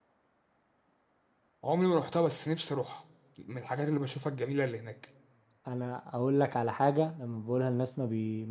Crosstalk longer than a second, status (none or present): none